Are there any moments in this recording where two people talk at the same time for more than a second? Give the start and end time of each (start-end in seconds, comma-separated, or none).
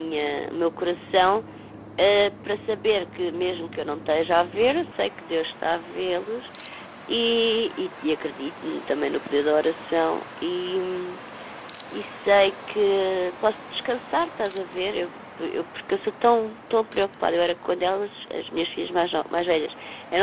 none